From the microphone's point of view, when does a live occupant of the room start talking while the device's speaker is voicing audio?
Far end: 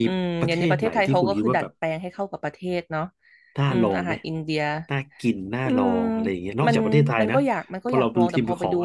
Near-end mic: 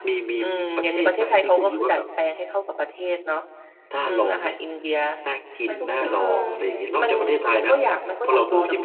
5.7 s

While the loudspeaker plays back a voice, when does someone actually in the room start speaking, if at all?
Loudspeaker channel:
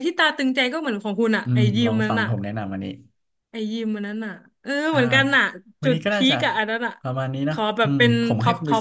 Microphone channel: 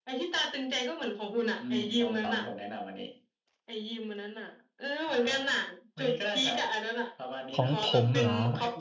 7.5 s

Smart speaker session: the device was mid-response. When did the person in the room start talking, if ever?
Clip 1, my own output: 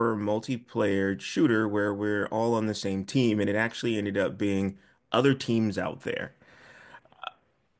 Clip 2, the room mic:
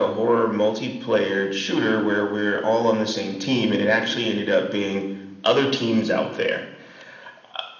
none

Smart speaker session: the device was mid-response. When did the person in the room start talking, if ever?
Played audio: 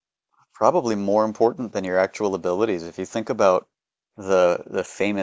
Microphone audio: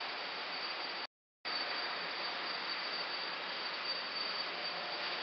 none

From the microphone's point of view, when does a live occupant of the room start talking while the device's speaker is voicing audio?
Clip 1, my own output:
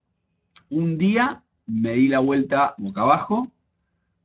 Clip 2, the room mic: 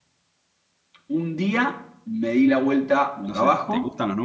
3.2 s

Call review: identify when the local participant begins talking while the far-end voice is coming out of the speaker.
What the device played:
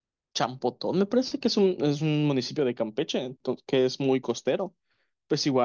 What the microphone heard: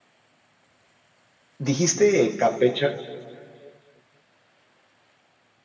1.7 s

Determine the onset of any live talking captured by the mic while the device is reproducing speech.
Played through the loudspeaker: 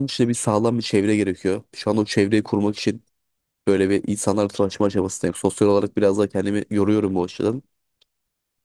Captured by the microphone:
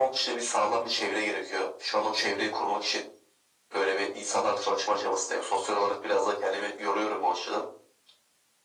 none

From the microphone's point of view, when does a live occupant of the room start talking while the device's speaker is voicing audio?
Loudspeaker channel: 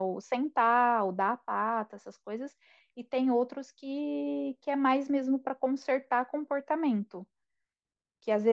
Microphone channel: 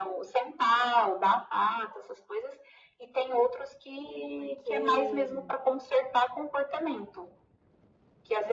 4.3 s

